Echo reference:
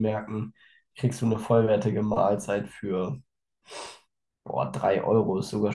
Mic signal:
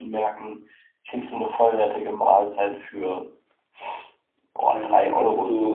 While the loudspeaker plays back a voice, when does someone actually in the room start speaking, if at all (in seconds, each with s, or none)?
4.6 s